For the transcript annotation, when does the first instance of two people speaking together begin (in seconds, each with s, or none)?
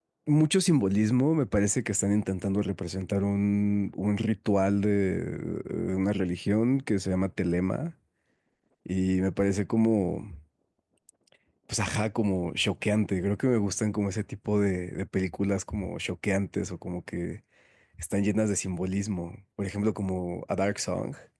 none